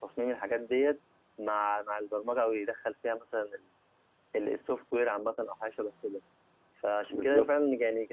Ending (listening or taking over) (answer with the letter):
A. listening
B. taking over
A